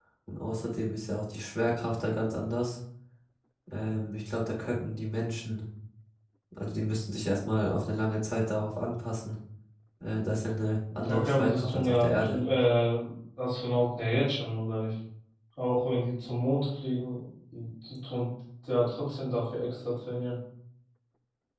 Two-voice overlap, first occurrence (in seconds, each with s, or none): 11.0 s